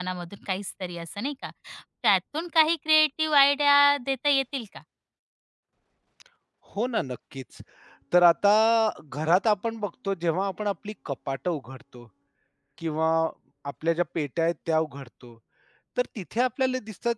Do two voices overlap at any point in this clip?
No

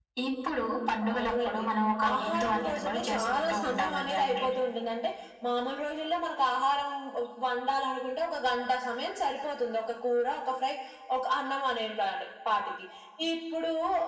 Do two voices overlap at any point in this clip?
Yes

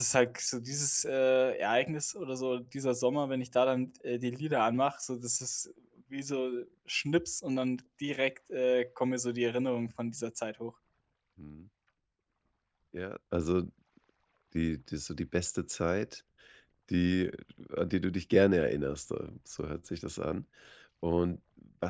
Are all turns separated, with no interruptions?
Yes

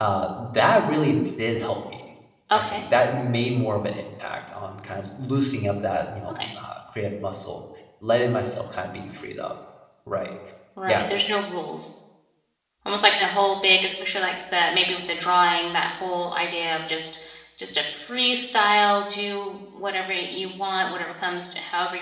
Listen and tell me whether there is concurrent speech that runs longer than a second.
No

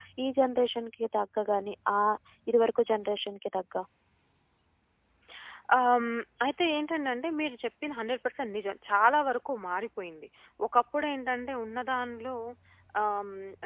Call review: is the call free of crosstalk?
Yes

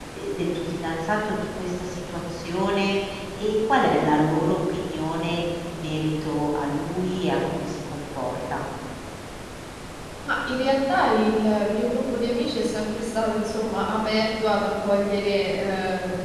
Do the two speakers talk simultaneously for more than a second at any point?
No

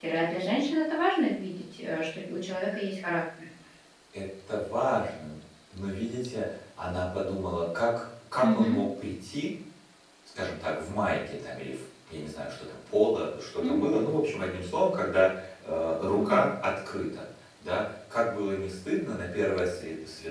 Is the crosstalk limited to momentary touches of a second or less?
Yes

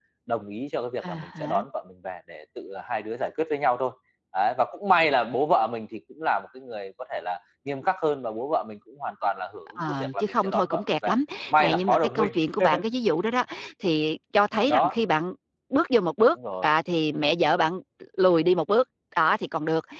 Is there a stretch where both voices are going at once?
Yes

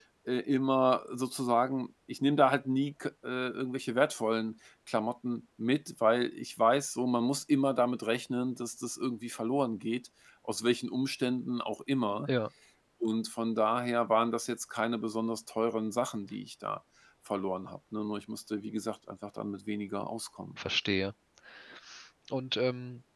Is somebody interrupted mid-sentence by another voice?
No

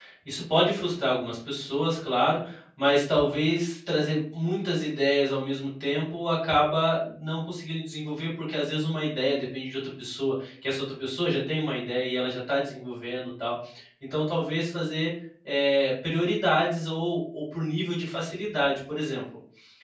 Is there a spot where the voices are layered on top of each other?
No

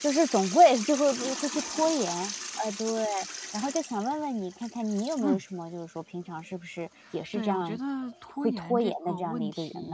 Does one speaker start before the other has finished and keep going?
Yes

